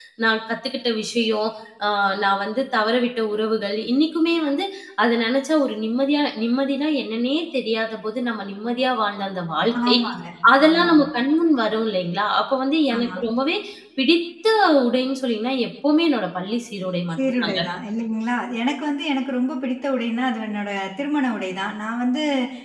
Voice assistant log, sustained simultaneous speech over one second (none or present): none